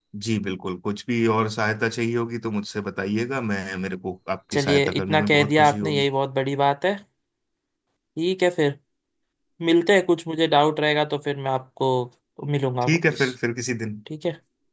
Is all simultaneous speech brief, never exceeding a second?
No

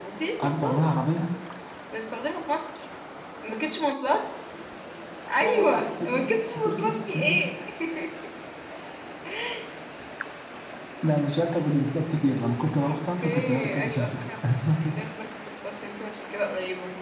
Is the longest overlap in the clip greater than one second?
Yes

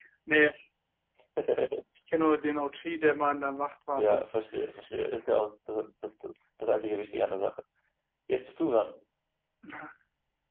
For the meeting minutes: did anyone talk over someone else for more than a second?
No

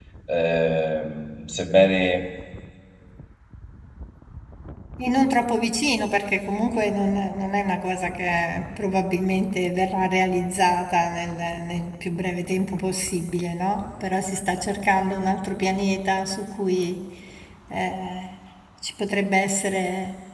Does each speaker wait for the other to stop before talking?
Yes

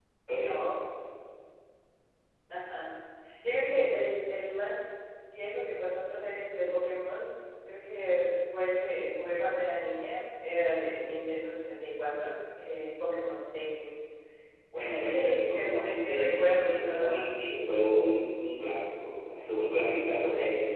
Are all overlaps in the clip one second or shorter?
No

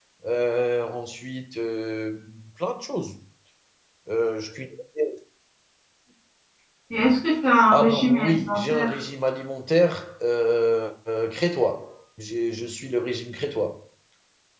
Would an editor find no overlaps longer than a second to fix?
No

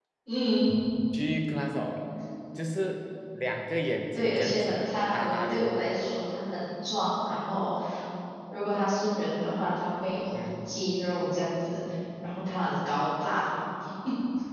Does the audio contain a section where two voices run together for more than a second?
Yes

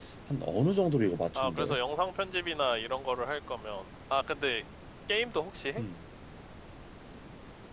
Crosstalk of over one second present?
No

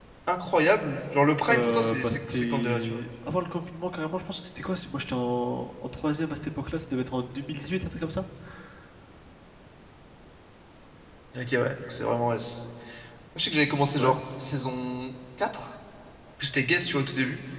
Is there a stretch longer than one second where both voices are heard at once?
Yes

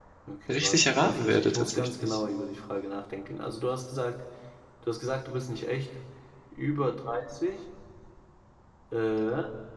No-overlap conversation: No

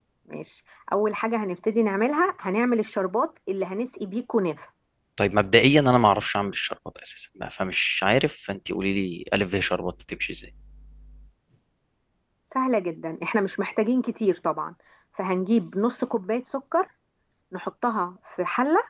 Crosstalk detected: No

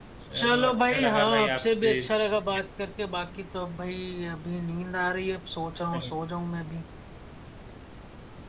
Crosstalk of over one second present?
Yes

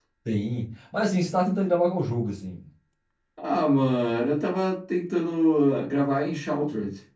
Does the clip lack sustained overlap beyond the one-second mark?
Yes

